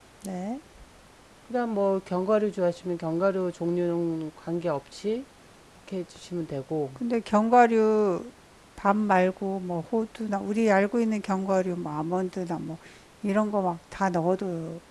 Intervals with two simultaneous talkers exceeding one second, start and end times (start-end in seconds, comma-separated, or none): none